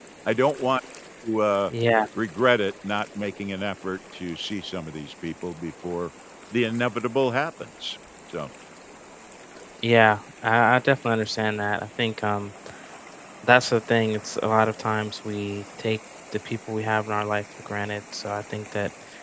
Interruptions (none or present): none